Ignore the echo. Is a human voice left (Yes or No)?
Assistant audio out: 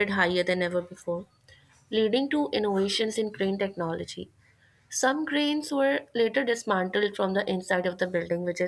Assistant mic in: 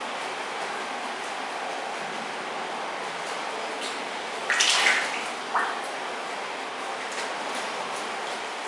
No